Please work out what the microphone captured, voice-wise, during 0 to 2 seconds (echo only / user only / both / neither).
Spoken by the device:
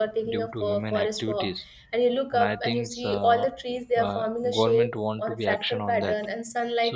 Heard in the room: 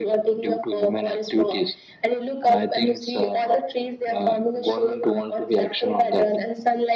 echo only